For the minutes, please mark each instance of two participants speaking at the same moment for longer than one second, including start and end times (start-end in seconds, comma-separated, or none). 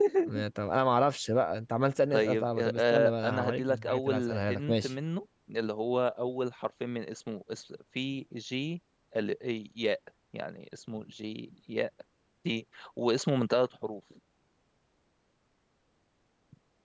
2.1-4.9